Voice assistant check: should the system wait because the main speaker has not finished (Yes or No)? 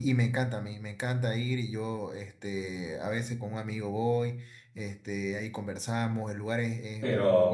No